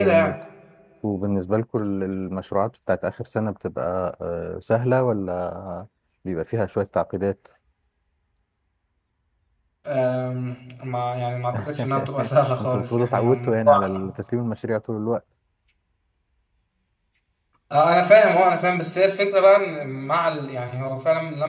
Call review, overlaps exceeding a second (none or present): present